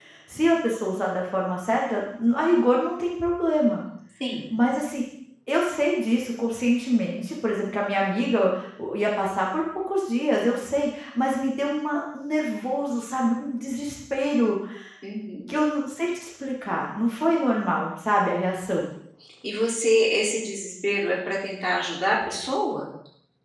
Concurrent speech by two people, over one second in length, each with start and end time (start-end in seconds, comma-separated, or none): none